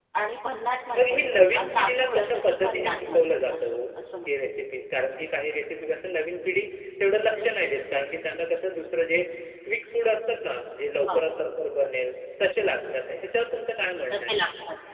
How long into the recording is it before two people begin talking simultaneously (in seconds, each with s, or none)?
1.0 s